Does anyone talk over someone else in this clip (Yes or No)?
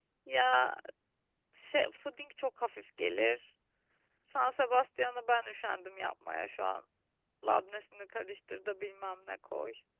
No